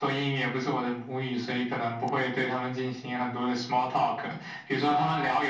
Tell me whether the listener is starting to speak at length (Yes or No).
No